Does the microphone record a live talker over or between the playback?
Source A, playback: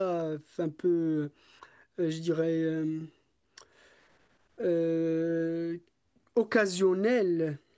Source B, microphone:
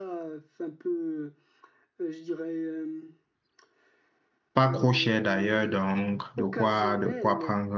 Yes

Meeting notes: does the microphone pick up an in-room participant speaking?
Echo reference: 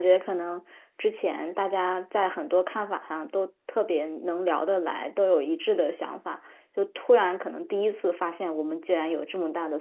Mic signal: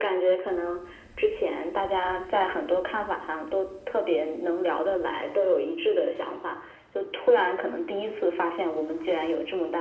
No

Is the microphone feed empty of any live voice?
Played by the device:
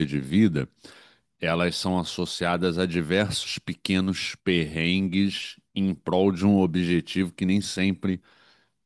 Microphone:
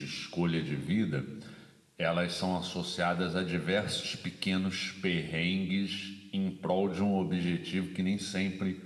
Yes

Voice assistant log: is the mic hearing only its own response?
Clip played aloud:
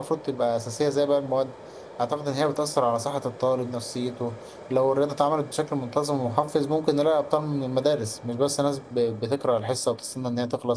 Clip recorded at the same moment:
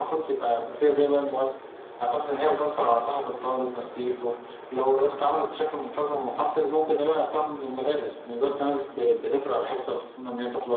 Yes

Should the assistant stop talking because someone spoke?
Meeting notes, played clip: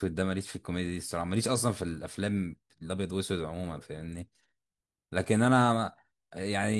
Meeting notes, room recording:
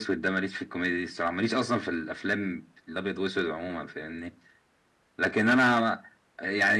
No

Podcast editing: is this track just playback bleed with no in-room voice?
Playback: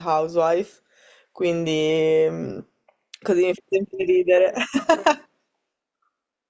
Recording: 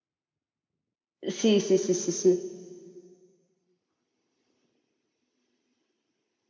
No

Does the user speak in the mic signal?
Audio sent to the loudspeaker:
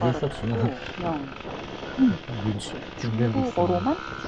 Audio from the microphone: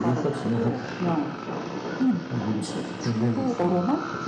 No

